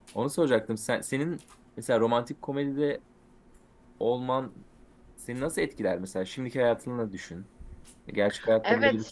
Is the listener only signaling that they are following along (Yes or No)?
No